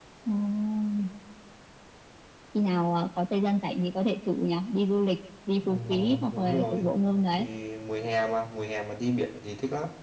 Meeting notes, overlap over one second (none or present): present